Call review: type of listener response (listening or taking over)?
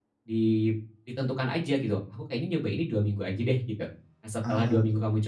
listening